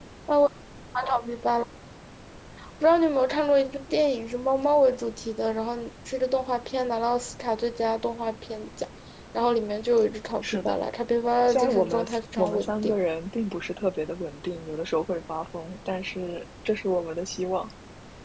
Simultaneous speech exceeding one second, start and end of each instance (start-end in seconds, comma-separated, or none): 11.5-13.0